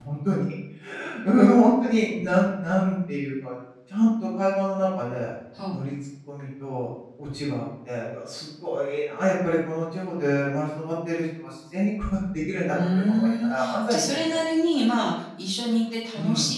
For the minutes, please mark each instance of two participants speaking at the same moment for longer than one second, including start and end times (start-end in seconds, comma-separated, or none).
12.7-14.4